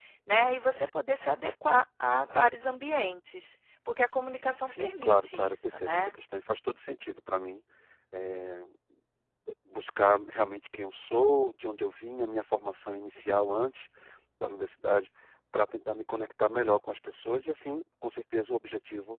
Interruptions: present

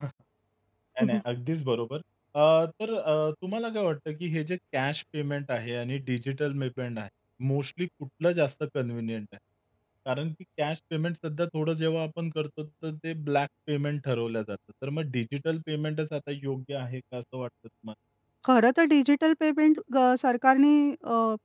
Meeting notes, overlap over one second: none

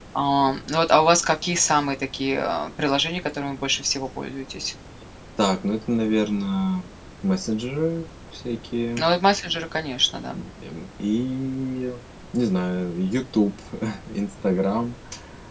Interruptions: none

